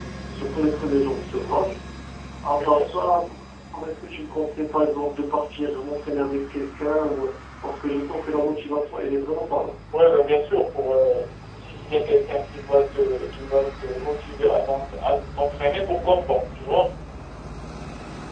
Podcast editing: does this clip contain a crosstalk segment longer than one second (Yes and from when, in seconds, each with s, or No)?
No